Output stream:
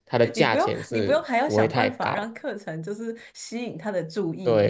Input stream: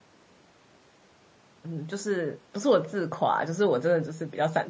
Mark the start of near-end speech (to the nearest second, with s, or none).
2 s